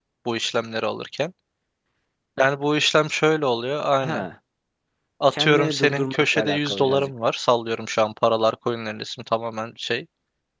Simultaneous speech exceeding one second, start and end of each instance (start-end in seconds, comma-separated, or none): 5.3-7.1